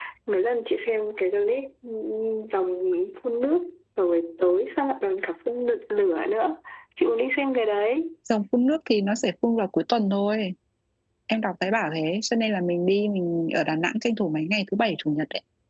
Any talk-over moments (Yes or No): No